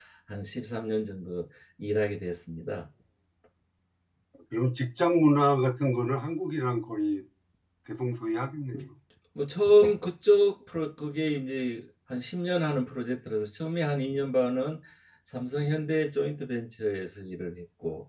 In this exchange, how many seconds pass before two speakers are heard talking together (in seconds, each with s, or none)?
none